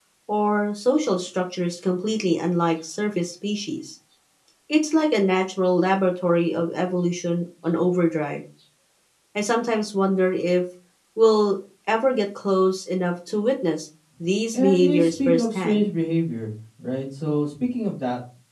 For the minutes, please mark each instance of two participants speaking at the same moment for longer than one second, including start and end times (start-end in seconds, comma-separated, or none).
14.5-15.9